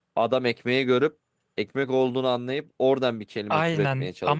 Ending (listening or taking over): taking over